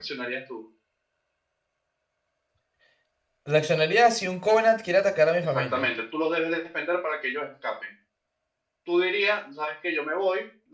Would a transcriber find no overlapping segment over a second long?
Yes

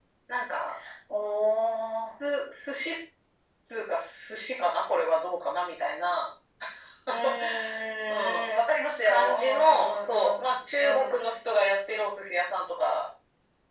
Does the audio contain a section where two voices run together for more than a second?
Yes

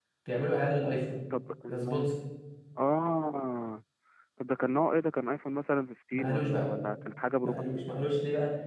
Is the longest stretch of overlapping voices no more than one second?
Yes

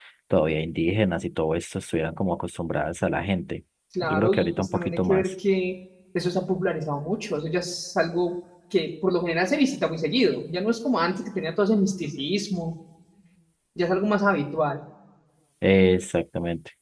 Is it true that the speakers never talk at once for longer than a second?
No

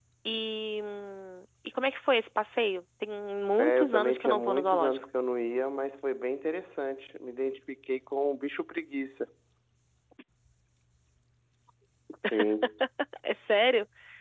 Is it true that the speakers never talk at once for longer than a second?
No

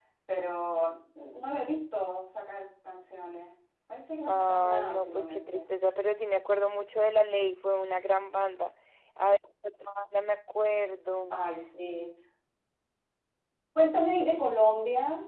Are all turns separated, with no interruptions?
No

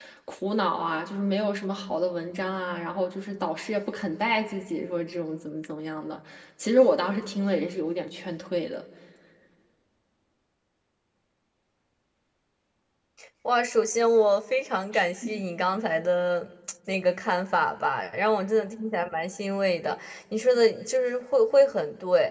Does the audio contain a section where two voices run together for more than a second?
No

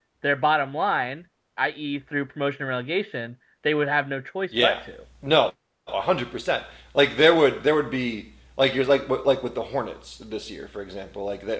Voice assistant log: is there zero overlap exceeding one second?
Yes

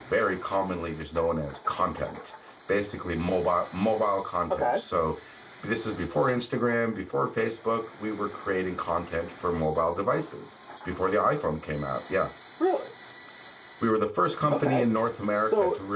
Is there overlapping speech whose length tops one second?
No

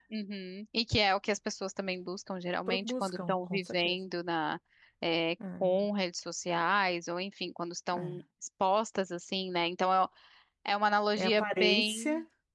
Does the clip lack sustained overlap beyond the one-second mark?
No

